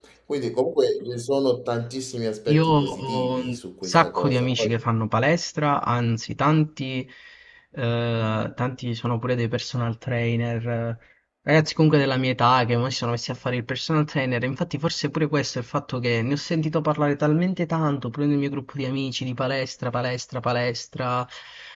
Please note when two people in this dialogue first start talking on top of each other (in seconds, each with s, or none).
2.5 s